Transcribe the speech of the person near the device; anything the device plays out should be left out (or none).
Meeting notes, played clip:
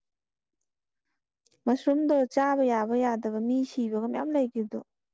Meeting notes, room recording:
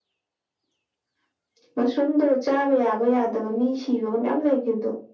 none